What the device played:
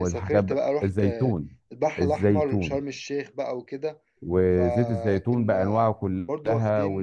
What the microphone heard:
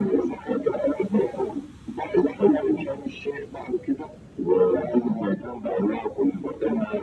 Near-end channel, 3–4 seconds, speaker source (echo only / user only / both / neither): echo only